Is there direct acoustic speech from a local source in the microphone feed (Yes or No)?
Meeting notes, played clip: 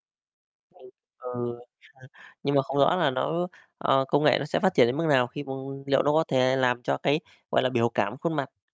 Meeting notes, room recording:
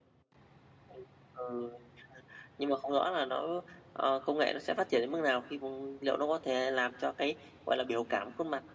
No